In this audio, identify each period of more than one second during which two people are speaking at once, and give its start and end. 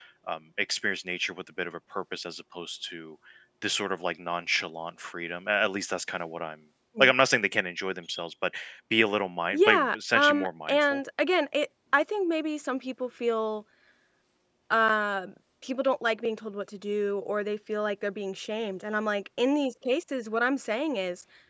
9.5-11.0

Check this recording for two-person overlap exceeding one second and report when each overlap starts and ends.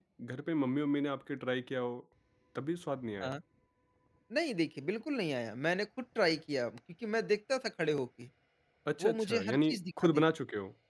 9.0-10.2

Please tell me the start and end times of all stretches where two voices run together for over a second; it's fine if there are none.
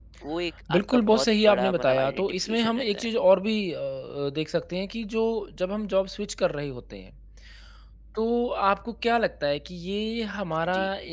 0.7-3.1

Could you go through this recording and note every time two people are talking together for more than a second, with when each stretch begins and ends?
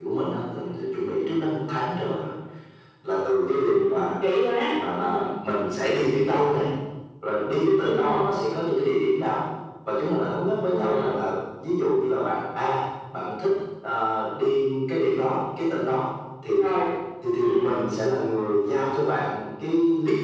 none

